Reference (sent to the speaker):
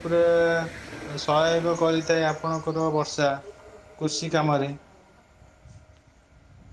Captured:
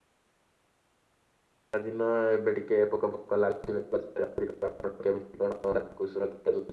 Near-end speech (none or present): present